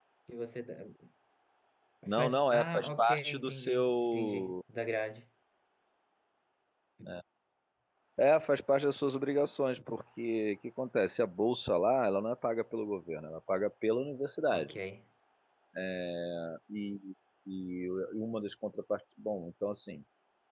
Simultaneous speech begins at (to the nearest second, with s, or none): 2 s